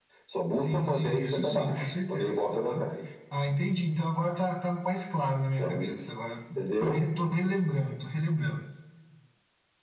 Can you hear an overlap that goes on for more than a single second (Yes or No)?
Yes